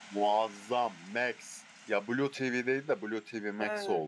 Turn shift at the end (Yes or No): Yes